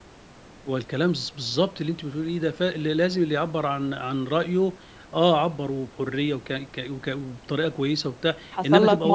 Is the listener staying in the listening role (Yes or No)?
No